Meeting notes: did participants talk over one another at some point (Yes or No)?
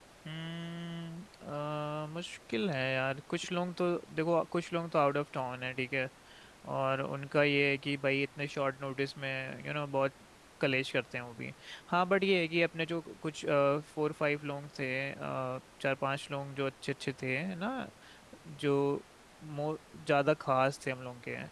No